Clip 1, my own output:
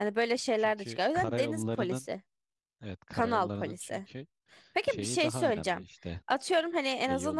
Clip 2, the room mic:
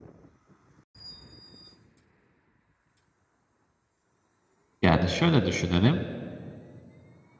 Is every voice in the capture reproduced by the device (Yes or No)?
No